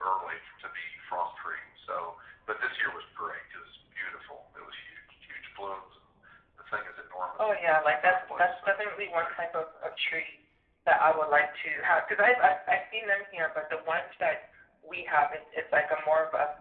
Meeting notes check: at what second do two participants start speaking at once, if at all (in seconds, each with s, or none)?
7.4 s